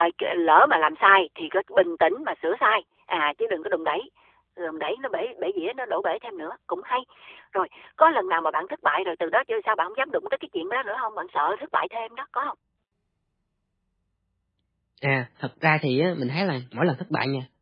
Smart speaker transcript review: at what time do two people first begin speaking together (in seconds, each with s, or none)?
none